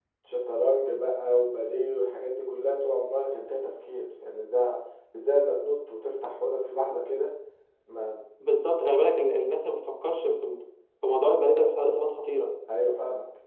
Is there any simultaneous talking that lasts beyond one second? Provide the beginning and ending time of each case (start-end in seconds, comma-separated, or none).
none